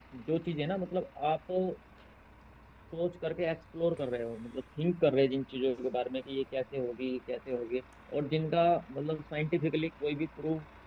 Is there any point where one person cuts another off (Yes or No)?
No